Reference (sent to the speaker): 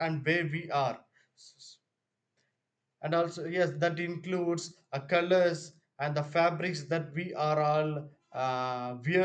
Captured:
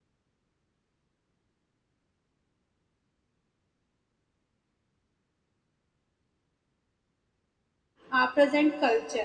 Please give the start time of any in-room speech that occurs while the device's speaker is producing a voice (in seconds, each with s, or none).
8.1 s